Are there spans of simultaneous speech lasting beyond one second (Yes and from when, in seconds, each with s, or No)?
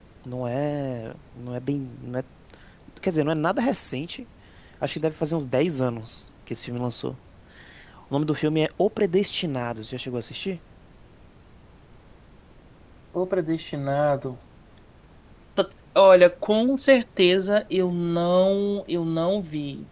No